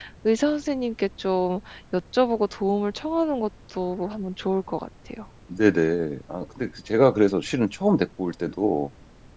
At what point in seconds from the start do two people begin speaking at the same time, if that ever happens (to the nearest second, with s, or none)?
none